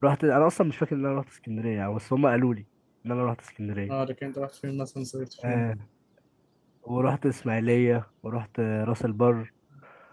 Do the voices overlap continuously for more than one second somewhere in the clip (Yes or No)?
No